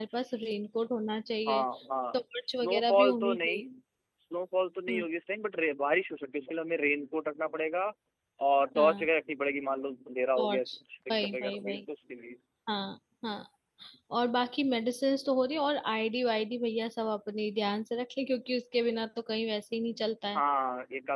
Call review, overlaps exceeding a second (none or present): present